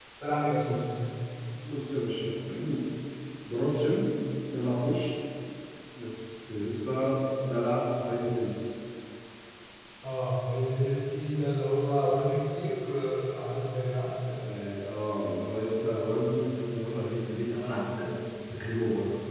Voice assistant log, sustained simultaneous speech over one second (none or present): none